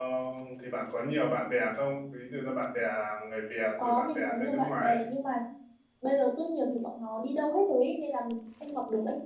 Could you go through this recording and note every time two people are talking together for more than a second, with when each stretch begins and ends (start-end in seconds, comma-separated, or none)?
3.8-5.0